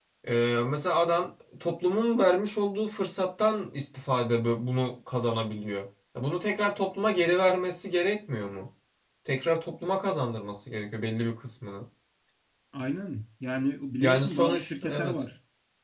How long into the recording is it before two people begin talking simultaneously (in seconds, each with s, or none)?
14.0 s